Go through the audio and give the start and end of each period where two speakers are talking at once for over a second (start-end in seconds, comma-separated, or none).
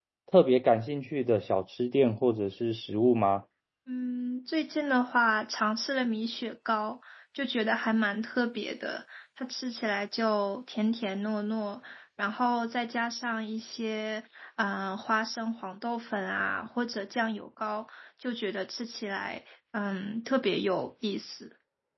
none